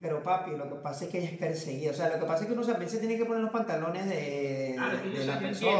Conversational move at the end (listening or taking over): taking over